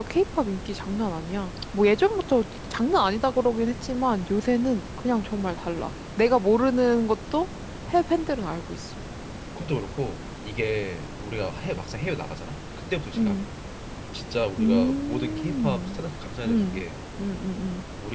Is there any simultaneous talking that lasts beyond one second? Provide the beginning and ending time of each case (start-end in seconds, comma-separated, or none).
14.6-16.0